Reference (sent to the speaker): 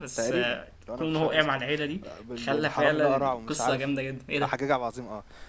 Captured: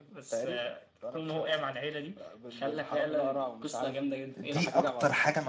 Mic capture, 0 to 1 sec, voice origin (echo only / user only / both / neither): echo only